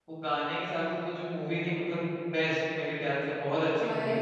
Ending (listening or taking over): taking over